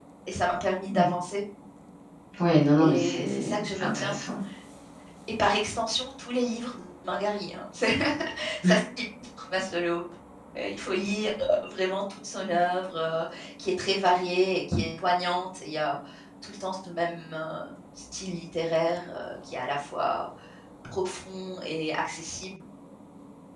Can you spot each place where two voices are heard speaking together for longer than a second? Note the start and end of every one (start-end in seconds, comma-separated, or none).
2.8-4.2